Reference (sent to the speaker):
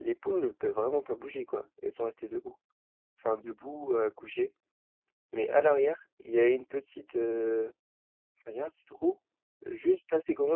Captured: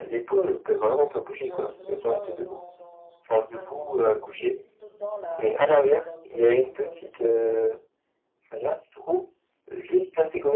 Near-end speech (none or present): present